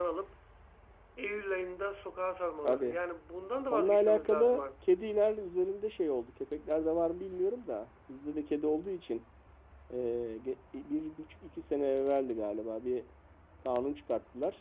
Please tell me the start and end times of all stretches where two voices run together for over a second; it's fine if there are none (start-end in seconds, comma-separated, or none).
3.7-4.9